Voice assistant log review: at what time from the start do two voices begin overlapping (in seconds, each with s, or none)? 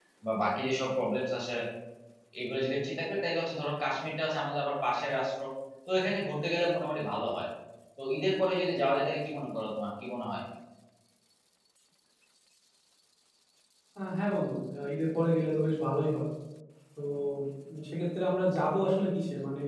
none